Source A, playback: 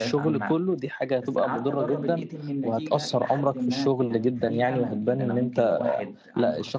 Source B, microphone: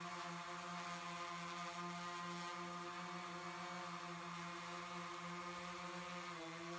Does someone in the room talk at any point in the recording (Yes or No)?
No